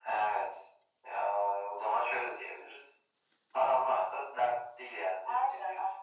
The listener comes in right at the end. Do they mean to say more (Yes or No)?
Yes